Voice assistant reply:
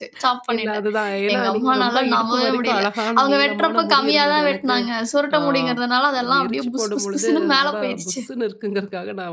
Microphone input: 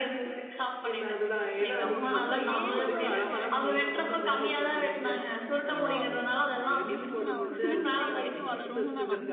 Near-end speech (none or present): present